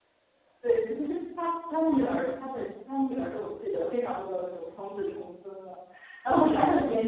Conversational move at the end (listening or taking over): listening